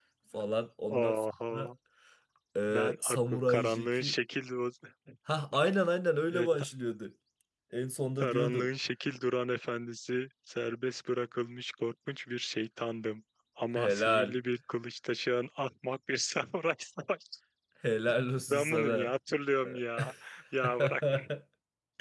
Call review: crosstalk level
present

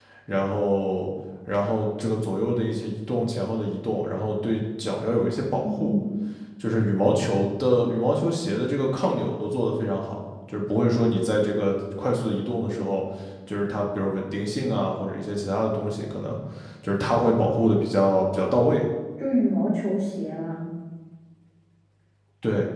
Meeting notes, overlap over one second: none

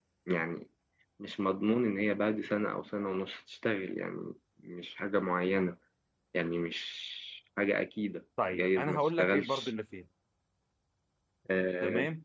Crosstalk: present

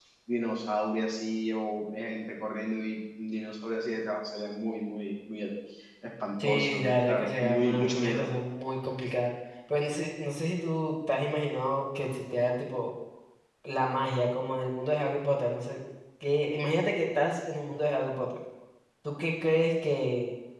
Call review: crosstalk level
present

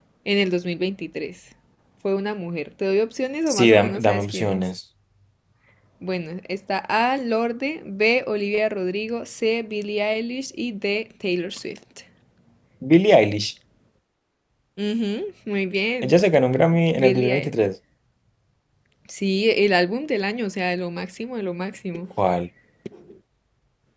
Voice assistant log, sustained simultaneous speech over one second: present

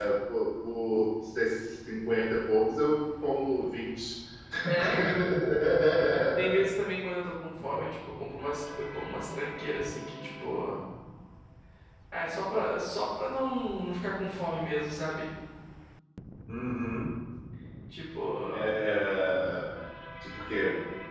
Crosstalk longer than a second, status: none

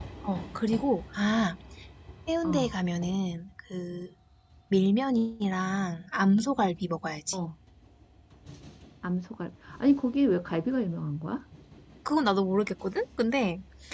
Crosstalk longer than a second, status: none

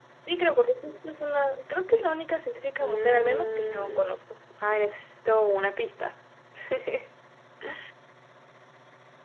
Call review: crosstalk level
present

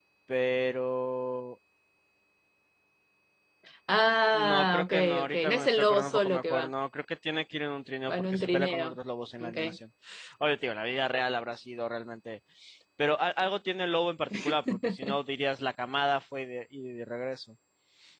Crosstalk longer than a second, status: present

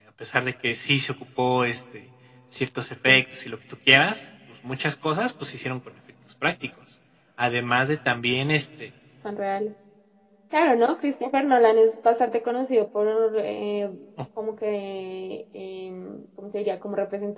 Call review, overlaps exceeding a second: none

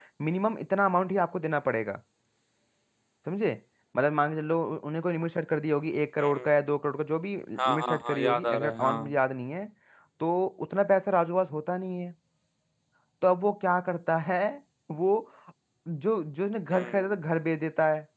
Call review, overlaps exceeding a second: present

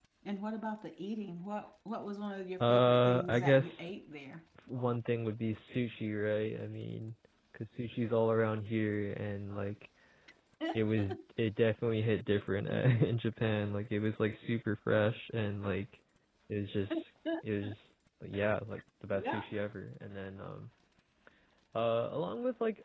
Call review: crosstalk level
present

